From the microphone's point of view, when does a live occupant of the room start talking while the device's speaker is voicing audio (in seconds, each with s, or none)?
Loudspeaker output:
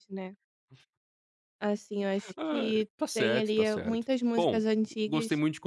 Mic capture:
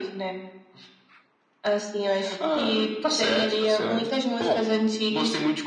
3.8 s